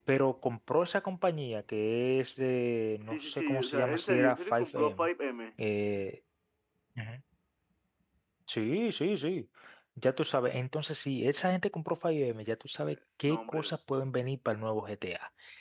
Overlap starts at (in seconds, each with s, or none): 3.0 s